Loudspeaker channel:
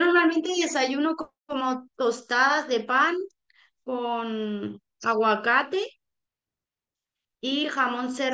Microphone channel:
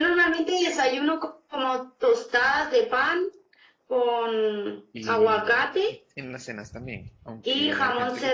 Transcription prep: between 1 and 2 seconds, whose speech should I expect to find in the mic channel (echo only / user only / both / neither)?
echo only